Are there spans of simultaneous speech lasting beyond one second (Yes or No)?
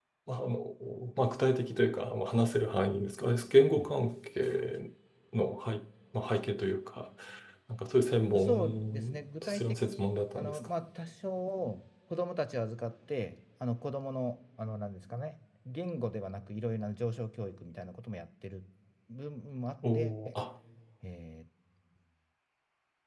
Yes